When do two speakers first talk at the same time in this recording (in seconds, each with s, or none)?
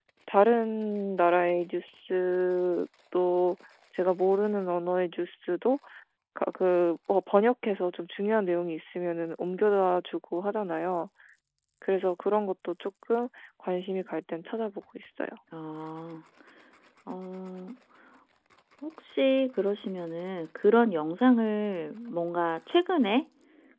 none